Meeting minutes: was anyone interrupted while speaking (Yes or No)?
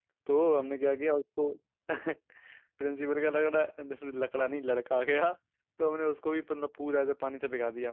No